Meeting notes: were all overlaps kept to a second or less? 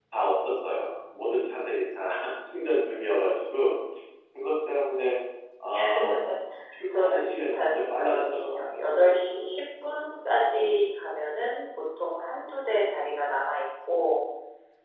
No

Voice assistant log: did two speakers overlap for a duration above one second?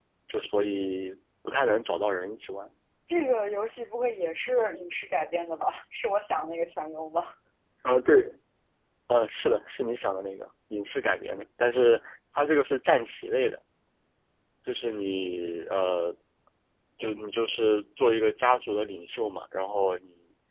No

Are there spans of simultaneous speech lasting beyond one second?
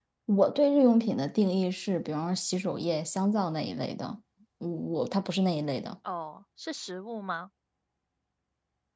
No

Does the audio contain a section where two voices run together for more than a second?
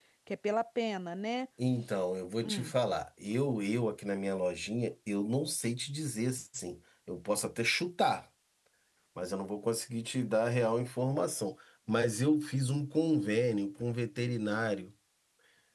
No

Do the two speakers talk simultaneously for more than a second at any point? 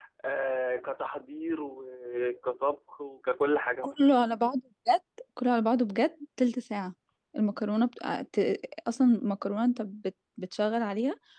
No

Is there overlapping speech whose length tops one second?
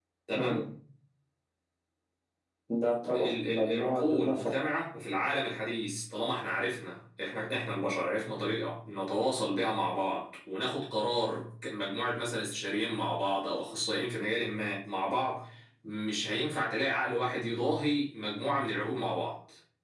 Yes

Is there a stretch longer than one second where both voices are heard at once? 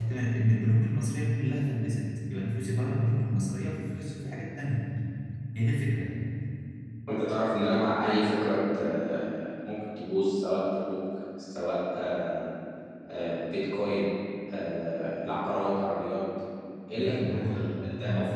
Yes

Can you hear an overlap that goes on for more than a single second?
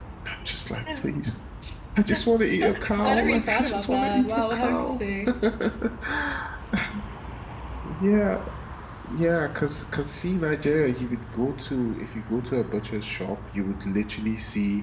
Yes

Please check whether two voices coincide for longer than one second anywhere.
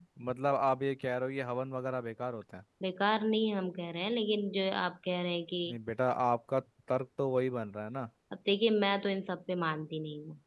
No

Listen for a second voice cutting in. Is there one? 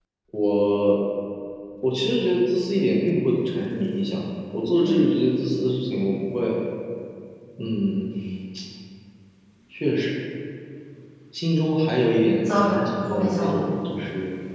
Yes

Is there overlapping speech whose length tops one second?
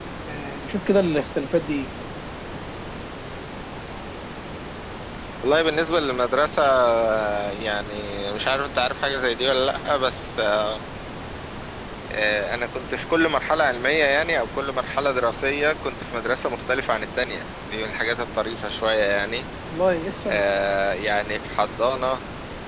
No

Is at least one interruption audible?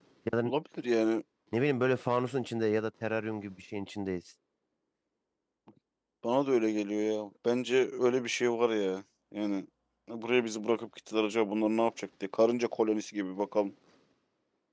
No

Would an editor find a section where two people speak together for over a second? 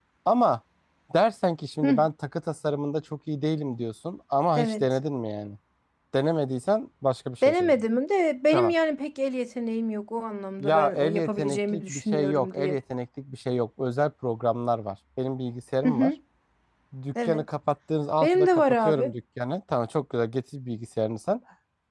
Yes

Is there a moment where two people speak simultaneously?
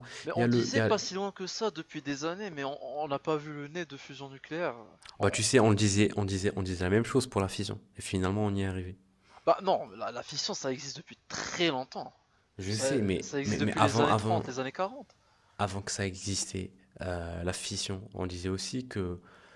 Yes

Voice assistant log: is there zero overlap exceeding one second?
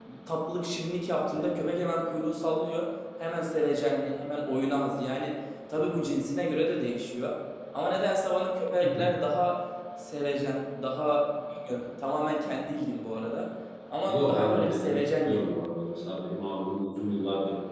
No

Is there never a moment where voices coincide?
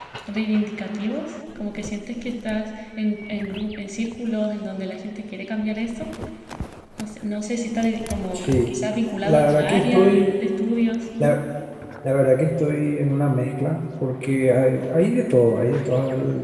No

